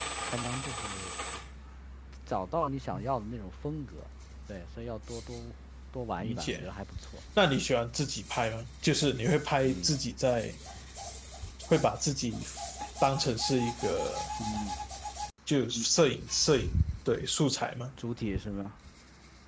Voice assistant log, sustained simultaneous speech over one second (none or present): none